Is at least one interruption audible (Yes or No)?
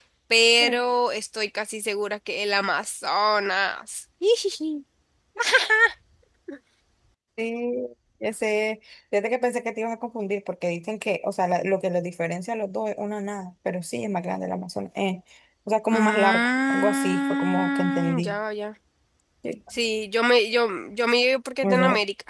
Yes